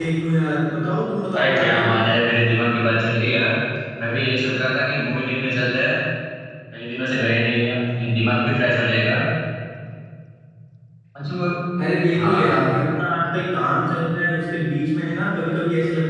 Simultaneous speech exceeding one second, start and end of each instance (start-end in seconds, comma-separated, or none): none